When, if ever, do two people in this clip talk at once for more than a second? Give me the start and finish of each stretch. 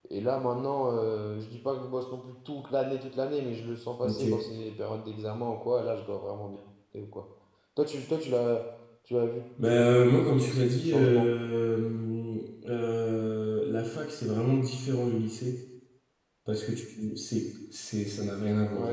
9.7-11.3

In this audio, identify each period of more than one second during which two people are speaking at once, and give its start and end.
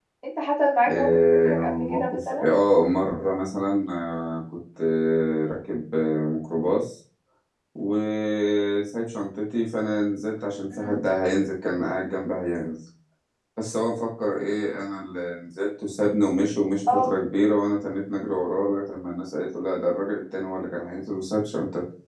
0.9-2.5

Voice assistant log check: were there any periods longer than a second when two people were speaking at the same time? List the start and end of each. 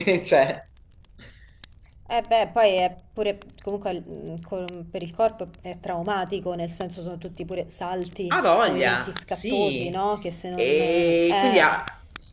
8.3-9.9, 10.6-11.8

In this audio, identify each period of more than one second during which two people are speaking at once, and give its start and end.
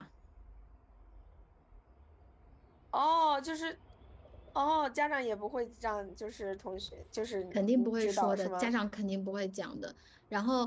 7.5-8.8

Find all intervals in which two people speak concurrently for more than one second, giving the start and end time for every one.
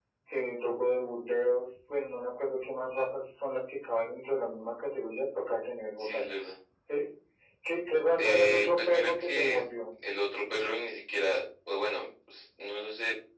8.2-9.6

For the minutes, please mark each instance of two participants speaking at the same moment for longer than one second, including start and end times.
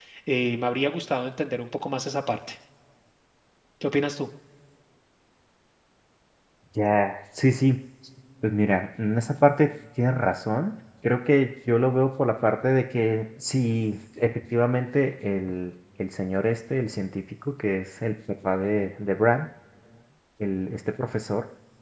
none

